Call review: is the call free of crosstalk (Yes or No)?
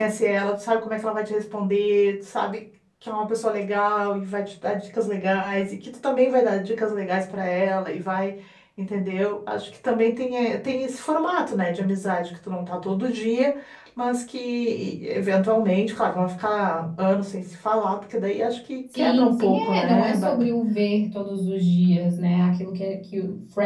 No